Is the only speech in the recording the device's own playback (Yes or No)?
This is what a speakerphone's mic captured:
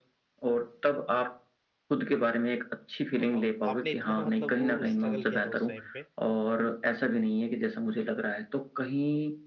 No